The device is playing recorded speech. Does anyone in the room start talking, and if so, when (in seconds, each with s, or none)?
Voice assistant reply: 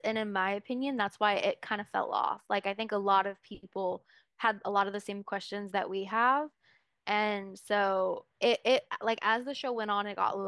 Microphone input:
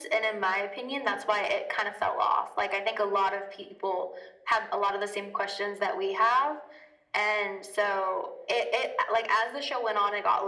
none